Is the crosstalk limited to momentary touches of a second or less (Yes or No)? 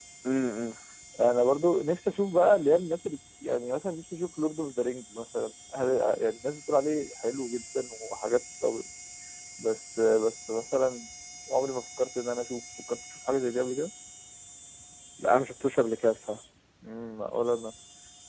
Yes